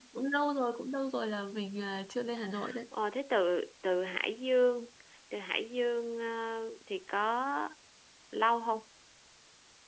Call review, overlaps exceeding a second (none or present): none